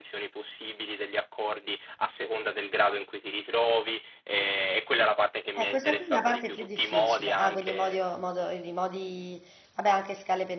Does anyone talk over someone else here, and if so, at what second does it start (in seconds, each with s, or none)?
5.5 s